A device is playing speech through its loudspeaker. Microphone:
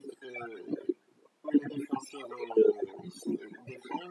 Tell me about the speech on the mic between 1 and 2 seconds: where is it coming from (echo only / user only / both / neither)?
echo only